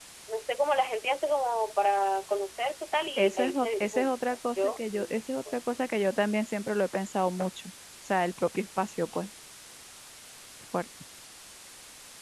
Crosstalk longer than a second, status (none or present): present